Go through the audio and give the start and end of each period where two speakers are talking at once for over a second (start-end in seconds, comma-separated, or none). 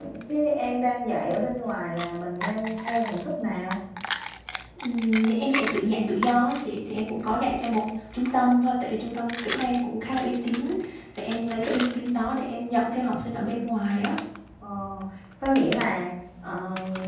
none